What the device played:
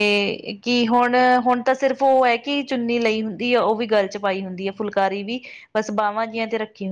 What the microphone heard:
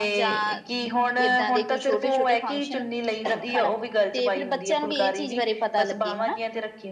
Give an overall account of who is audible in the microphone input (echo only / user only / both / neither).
both